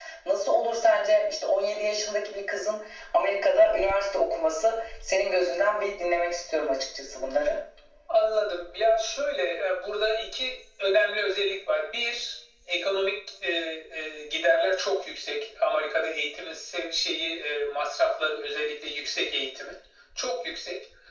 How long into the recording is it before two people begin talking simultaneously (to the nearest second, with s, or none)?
none